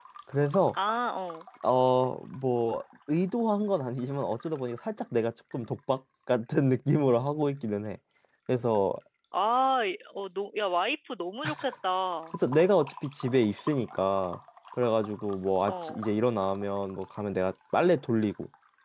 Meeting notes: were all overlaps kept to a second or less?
Yes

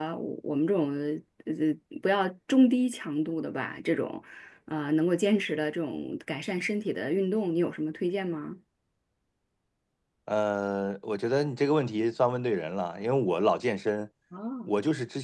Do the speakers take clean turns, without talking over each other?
Yes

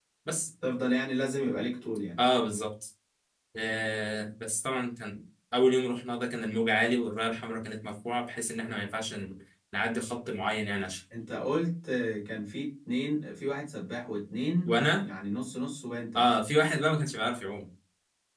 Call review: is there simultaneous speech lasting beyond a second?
No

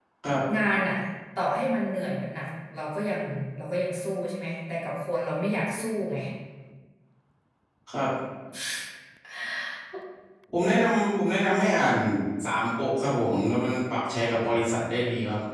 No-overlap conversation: Yes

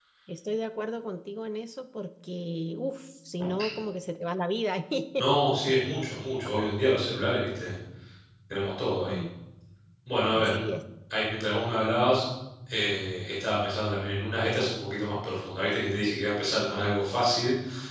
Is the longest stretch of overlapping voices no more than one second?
Yes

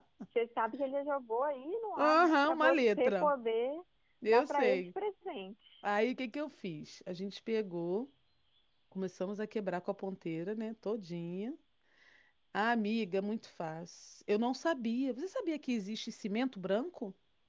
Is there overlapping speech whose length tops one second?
Yes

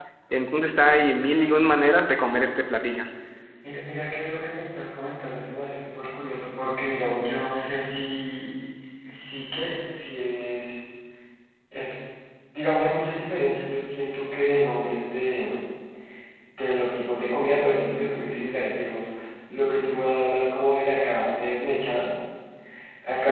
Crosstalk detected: No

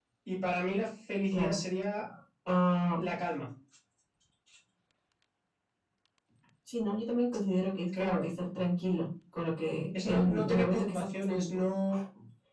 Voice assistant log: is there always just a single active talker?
No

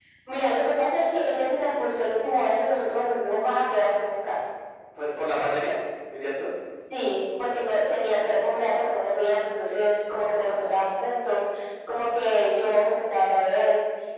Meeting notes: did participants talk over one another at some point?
No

